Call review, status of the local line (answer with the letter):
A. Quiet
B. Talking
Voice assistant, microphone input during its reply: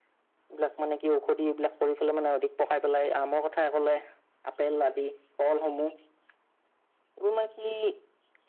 A